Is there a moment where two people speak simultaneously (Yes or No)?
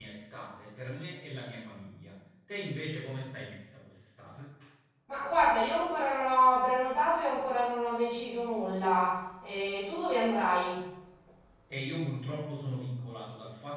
No